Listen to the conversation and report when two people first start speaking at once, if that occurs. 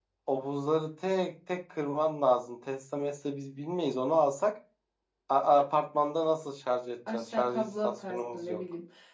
7 s

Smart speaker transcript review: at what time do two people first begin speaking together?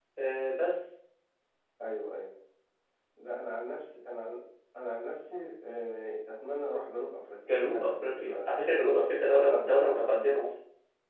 7 s

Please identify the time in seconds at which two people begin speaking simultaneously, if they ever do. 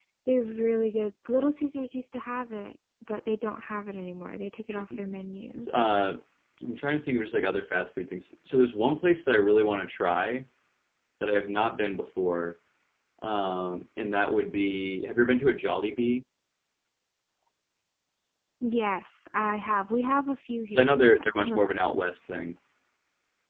21 s

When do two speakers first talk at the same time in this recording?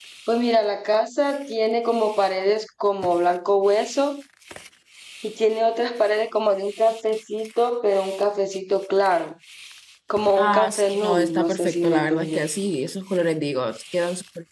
10 s

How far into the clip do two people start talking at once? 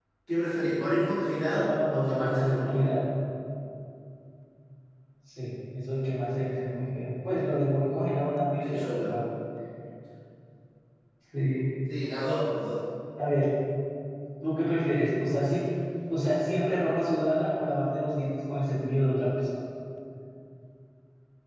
2 s

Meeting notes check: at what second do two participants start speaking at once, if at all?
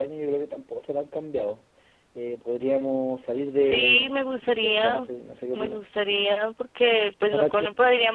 4 s

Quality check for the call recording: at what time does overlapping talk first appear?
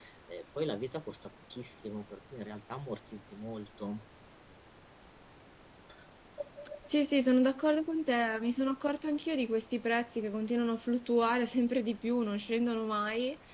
none

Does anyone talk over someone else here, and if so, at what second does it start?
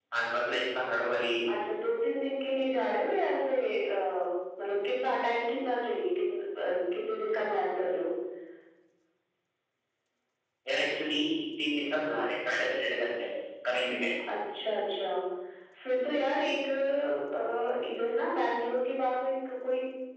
none

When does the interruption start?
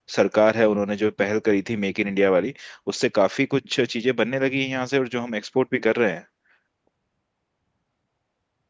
none

